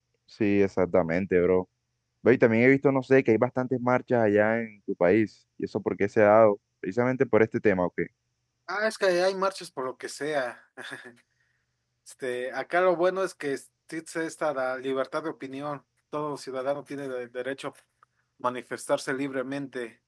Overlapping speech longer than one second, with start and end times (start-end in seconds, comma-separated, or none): none